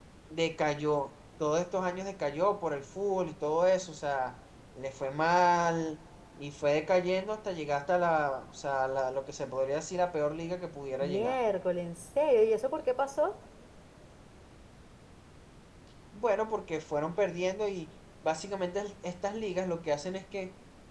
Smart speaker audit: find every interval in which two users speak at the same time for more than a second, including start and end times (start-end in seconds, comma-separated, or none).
none